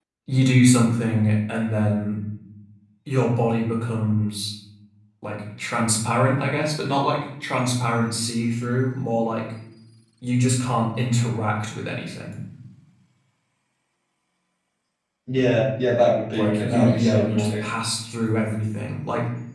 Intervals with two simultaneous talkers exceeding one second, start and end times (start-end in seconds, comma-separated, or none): 16.3-17.6